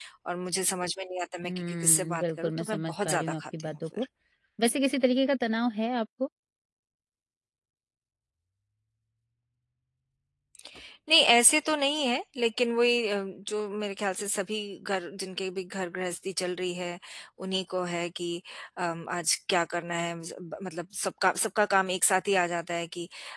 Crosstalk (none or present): present